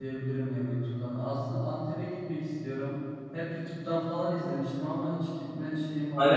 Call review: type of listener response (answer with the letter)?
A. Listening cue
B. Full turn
B